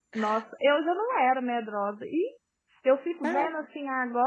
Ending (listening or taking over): listening